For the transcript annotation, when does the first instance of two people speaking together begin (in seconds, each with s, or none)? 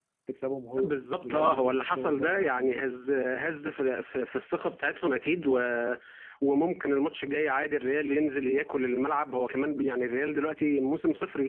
0.8 s